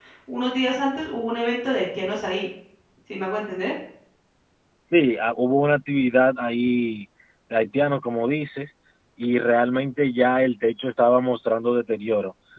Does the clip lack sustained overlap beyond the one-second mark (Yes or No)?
Yes